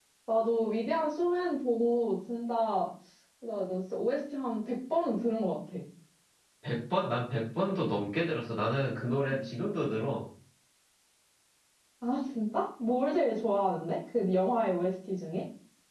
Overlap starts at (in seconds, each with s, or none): none